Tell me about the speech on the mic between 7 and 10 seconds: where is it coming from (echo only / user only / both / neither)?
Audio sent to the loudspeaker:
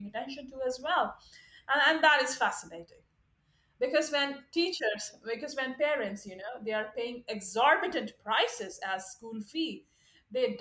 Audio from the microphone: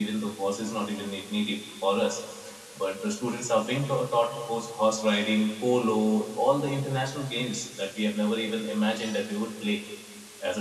user only